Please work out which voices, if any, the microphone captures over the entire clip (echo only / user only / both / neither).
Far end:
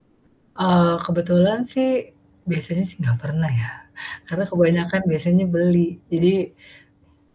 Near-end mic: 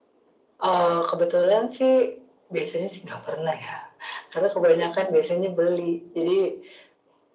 echo only